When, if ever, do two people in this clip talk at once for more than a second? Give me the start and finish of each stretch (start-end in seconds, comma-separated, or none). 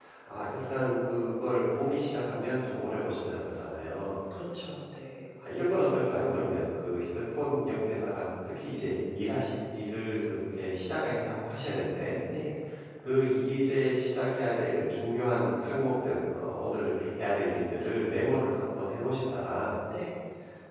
none